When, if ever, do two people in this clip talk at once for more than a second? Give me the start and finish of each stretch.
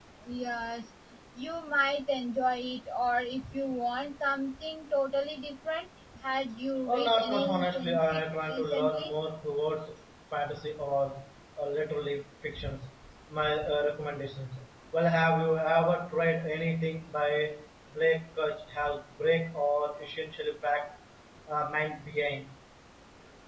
6.9-9.1

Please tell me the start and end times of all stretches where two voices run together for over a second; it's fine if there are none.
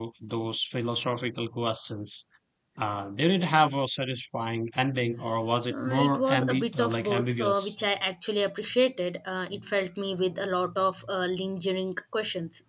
5.7-7.7

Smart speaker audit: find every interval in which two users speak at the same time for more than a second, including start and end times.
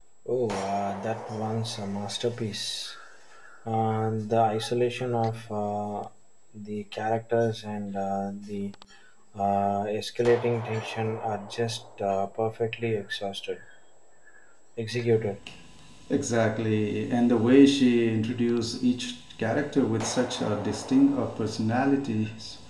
none

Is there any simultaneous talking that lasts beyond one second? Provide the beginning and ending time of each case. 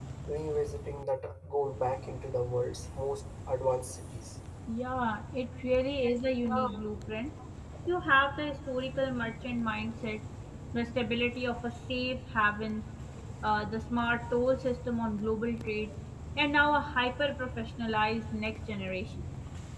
none

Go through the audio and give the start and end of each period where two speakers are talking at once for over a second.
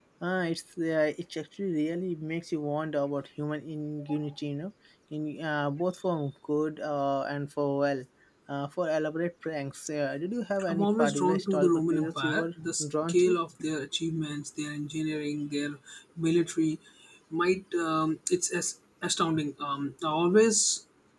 10.7-12.5

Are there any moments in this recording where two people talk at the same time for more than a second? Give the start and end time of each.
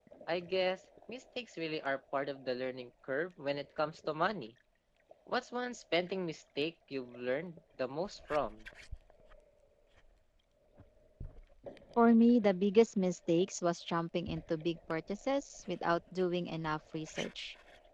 none

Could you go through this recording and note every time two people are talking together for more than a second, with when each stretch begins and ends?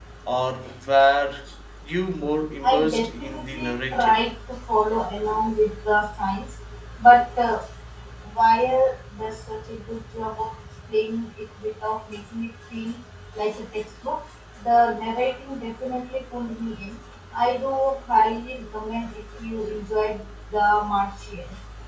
2.6-4.2

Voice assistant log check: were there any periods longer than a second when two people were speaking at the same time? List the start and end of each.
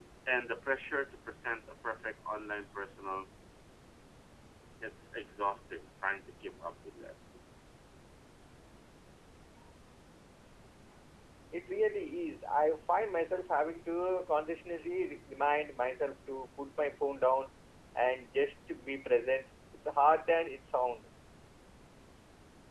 none

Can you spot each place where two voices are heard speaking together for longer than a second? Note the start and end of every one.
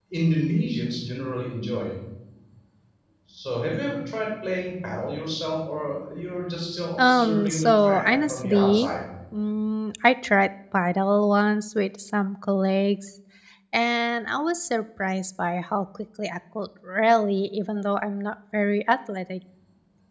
7.0-8.9

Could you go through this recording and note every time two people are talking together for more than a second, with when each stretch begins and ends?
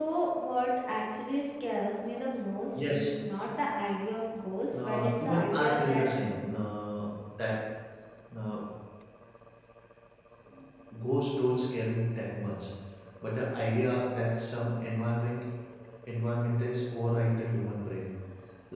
4.8-6.0

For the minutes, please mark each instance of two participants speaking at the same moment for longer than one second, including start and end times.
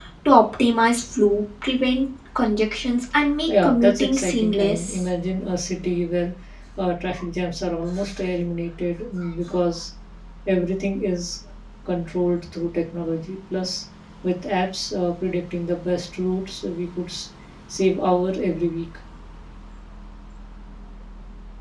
3.5-5.0

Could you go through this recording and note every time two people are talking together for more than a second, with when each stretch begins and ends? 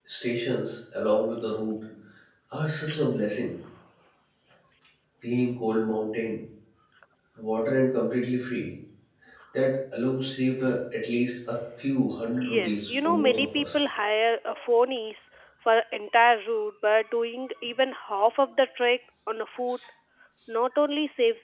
12.6-13.8

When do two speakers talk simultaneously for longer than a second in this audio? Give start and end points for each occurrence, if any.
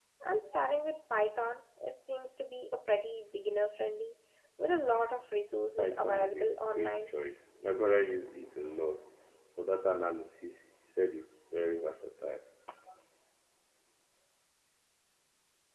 5.8-7.1

